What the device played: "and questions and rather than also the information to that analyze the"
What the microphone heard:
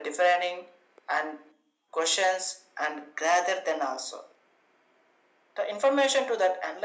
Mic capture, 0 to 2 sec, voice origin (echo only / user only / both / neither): echo only